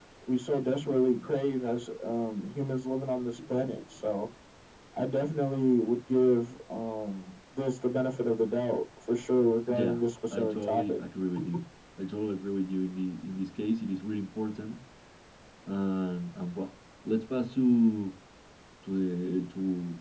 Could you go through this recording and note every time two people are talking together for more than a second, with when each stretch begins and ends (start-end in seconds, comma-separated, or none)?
9.7-11.0